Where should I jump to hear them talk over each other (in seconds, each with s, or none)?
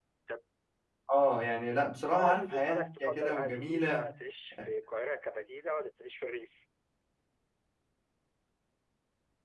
2.1 s